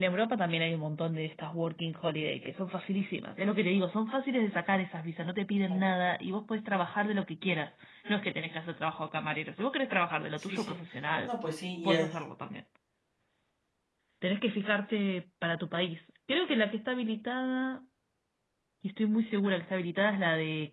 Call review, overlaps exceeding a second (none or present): none